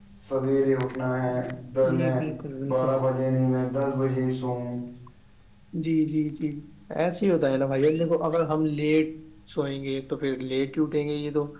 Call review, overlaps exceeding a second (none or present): none